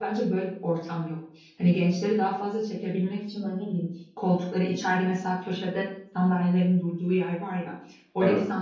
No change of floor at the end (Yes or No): Yes